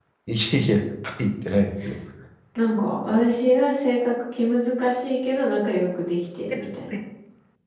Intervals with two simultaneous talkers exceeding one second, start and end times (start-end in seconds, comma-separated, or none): none